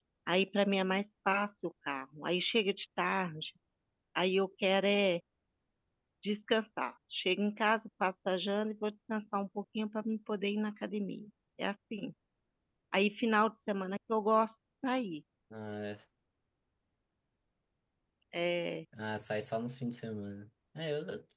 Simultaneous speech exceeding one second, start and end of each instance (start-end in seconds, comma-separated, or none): none